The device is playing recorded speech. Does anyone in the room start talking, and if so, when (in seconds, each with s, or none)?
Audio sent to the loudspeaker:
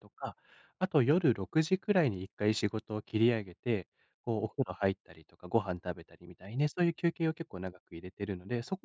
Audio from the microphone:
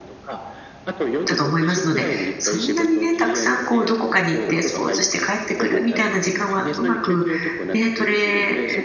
1.3 s